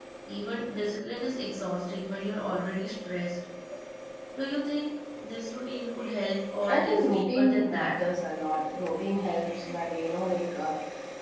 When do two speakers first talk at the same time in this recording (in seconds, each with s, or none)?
6.7 s